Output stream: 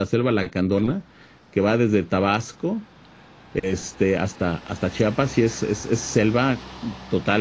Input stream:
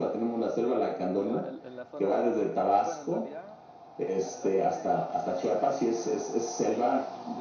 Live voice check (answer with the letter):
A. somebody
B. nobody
A